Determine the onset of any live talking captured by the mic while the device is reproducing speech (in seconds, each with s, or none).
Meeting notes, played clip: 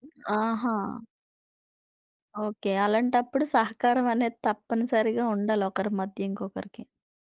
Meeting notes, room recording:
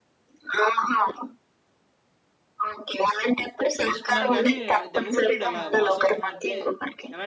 3.9 s